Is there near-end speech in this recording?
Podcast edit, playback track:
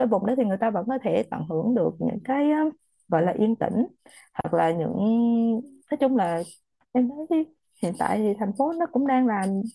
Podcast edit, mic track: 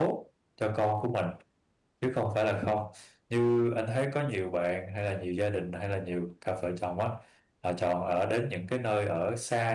Yes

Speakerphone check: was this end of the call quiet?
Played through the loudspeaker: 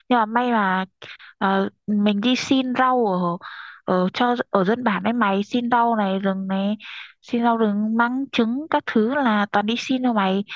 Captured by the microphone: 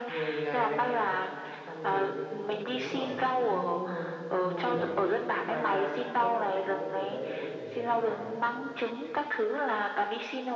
No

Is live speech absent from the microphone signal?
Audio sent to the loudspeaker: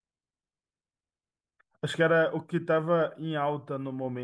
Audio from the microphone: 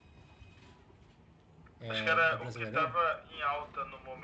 No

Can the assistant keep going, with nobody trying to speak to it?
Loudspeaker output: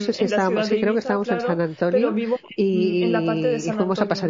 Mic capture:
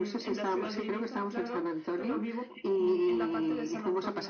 Yes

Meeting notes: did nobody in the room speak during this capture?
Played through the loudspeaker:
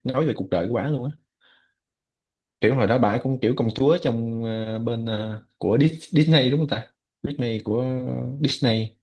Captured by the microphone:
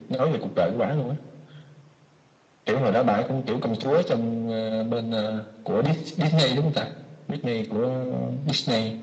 Yes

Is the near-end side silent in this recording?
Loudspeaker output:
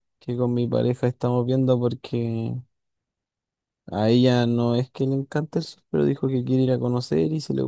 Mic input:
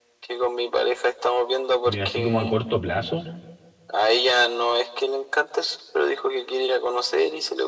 No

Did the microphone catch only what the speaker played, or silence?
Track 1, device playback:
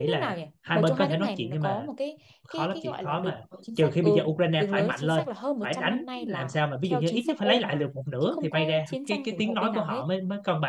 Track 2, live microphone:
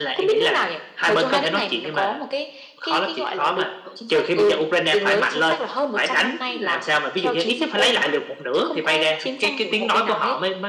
Yes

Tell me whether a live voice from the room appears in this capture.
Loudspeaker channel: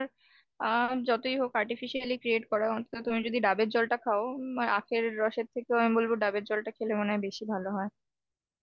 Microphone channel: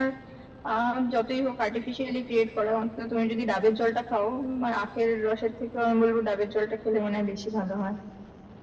No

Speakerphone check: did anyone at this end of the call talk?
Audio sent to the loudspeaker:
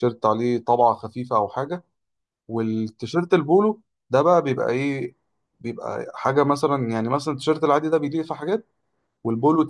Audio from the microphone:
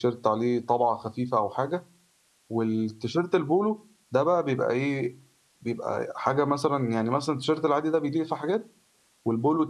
No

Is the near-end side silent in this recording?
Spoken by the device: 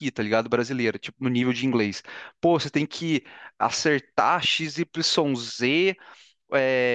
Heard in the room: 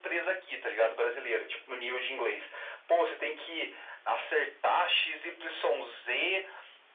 Yes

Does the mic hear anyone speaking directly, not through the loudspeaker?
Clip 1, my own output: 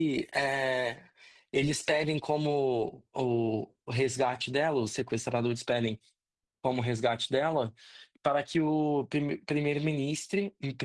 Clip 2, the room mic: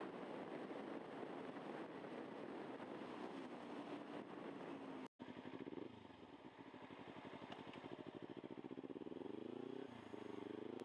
No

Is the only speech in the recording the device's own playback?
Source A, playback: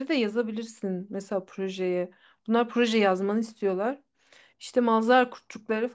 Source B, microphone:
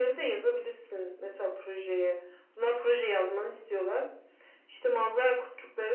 Yes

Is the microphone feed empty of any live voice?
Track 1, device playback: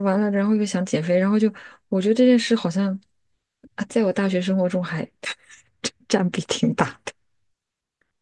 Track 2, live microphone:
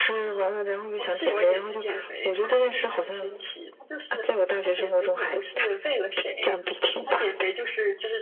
No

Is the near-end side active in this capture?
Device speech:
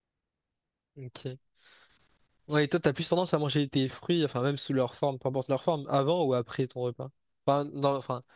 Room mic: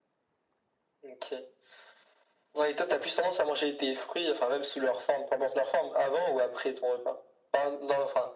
No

